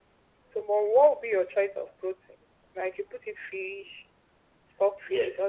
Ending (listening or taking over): taking over